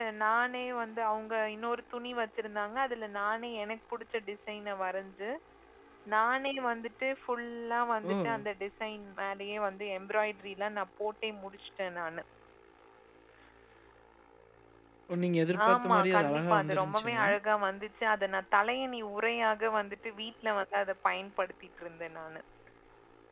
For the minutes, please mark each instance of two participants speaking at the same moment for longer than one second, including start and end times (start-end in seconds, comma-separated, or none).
15.7-17.3